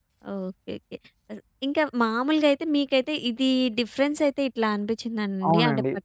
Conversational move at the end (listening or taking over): listening